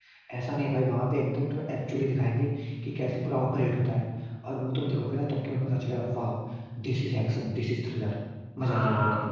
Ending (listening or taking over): taking over